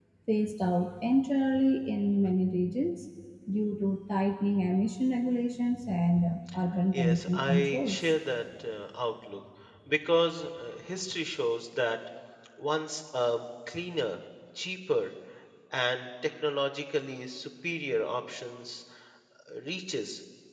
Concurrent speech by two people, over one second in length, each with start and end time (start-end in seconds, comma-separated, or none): 6.9-8.1